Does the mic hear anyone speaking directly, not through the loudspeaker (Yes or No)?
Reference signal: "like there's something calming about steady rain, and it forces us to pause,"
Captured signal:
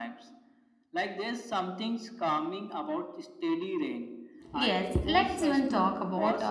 Yes